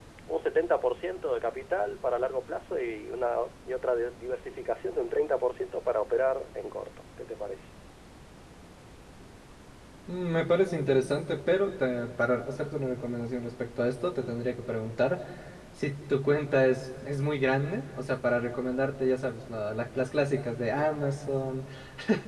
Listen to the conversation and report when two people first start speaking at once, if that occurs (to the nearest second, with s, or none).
none